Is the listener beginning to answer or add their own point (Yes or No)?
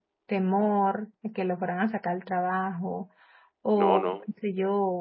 No